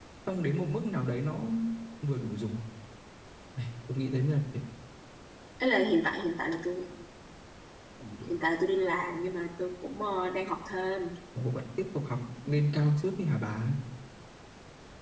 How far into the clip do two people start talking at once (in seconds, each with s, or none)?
none